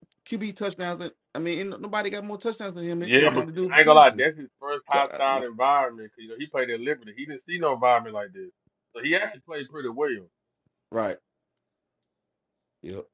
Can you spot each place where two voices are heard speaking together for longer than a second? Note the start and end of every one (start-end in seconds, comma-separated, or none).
3.0-4.2